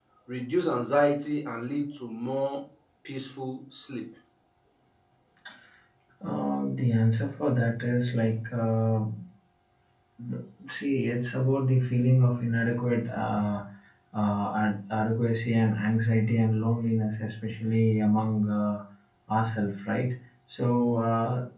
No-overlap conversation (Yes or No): Yes